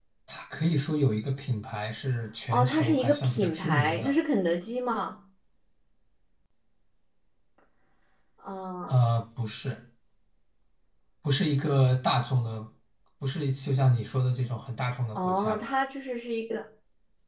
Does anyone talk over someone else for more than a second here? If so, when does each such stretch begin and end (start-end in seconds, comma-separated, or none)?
2.5-4.1